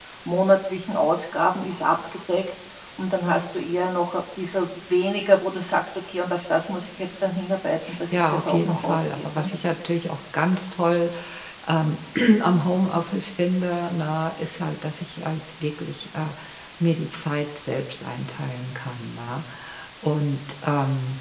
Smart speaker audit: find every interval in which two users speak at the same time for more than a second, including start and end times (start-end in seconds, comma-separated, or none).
8.1-9.5